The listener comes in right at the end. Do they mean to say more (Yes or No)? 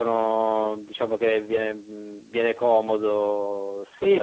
Yes